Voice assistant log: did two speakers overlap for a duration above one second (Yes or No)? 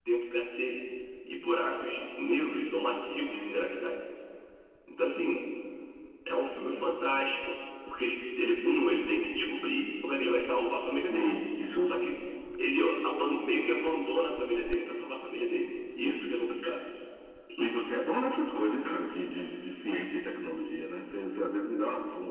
No